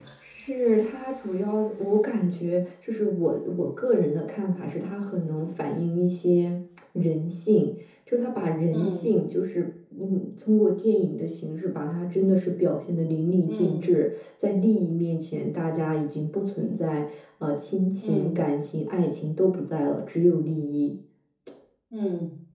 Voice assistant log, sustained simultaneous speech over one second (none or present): none